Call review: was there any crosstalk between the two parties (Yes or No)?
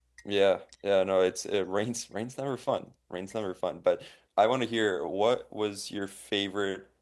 No